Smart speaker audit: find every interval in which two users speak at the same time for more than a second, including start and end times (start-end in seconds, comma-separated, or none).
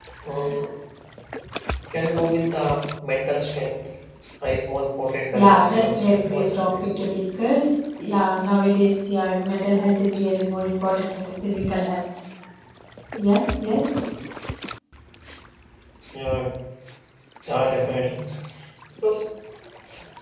5.3-6.7